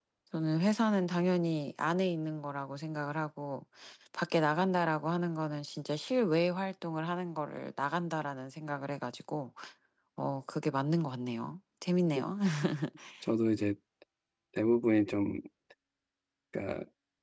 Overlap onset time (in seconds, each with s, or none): none